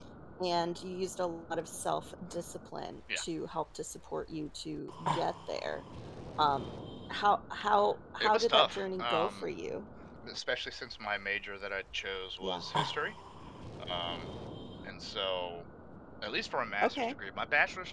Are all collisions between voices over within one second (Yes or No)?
No